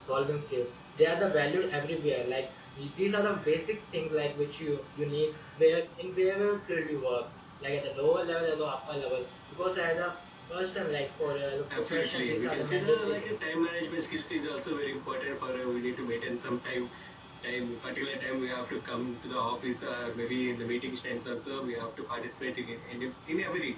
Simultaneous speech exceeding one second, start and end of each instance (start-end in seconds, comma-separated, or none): 11.8-13.5